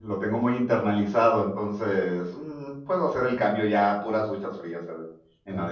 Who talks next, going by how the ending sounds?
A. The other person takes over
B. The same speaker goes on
A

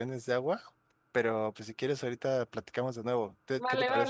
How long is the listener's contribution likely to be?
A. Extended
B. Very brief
A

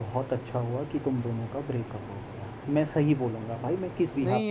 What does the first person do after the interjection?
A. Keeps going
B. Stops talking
B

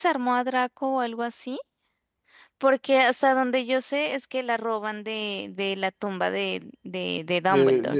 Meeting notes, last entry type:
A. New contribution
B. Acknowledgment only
A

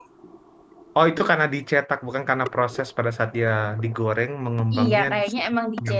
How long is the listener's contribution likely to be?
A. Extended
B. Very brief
A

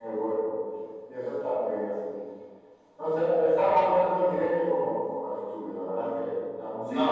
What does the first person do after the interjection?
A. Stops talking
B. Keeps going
A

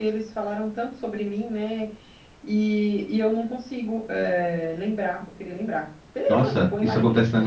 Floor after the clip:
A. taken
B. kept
A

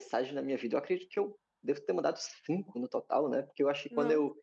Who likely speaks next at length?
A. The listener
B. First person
B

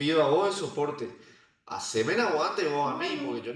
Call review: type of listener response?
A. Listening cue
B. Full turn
A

